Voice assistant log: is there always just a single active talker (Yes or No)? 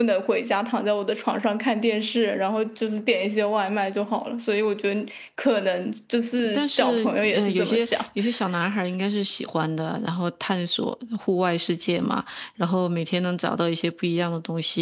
No